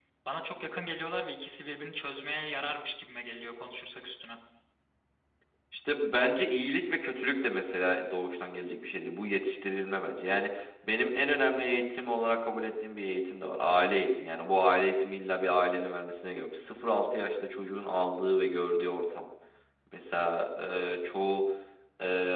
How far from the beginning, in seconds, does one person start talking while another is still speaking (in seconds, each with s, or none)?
none